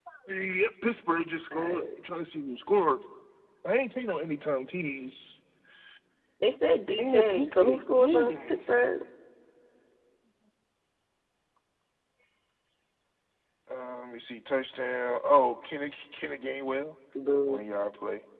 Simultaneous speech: Yes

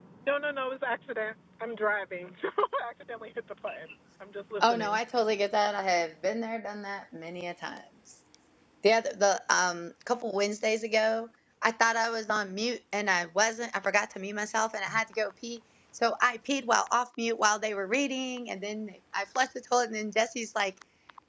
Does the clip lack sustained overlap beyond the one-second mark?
Yes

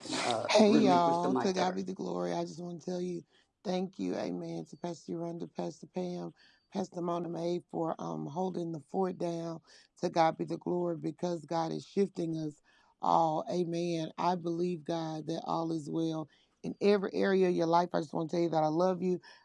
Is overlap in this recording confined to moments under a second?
No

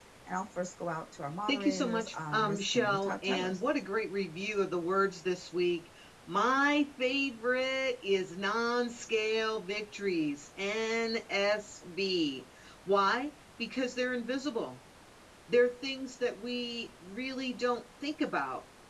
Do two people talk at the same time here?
Yes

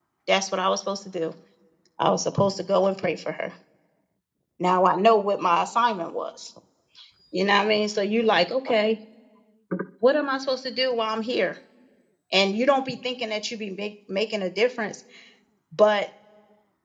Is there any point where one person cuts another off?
No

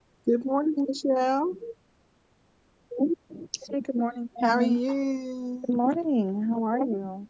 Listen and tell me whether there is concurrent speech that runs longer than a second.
No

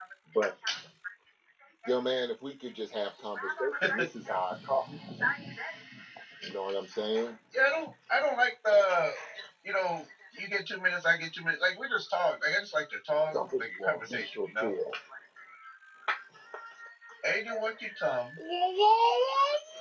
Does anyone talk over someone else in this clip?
Yes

